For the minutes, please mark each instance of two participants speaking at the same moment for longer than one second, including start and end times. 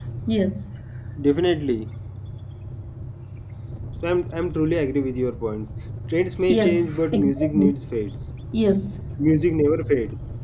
6.5-7.7

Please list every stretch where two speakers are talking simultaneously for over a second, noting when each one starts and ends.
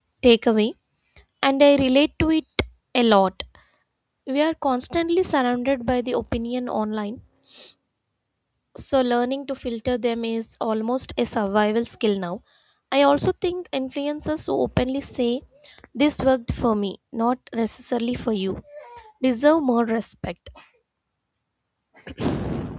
none

